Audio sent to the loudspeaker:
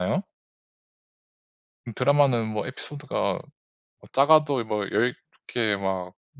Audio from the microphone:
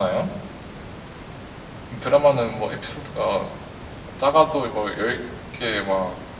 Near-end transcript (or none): none